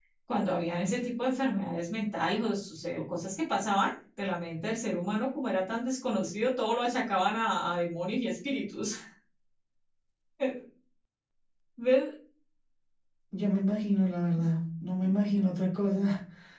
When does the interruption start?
none

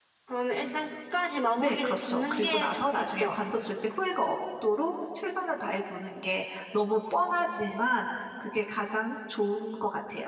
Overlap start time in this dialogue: 2 s

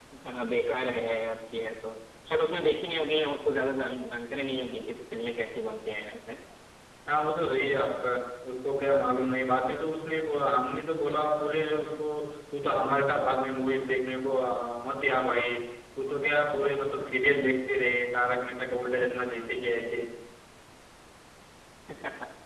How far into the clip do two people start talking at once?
none

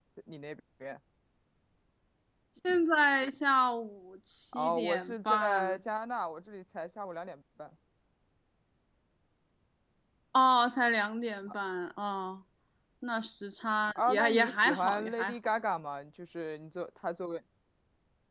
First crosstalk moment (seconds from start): 5 s

